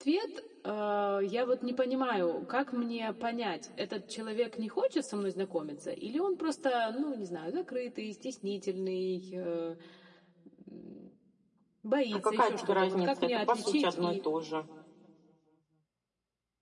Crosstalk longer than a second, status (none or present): present